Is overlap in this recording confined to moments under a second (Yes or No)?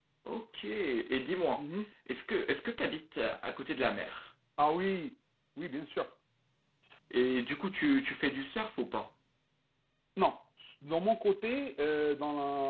Yes